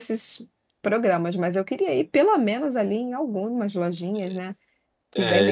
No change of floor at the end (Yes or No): No